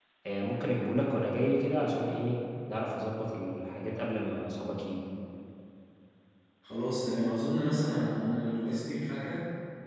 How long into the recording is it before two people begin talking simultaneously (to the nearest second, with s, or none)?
none